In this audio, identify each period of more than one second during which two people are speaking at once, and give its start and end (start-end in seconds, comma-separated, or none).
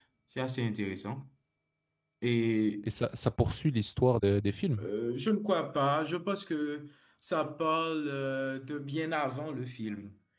none